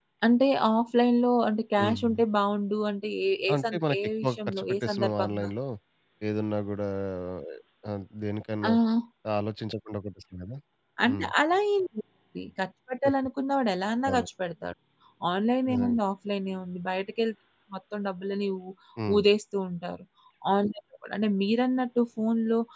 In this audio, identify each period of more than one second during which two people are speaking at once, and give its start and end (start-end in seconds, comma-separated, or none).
3.5-5.5